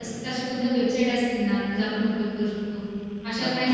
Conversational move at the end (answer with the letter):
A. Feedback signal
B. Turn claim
B